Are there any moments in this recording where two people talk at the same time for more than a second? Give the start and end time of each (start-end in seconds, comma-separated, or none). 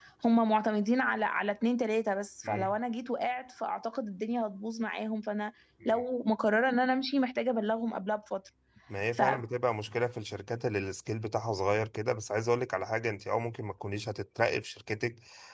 none